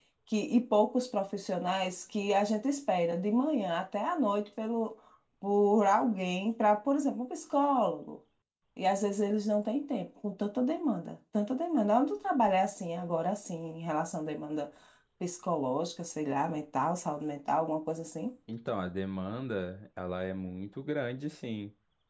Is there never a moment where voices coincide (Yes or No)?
Yes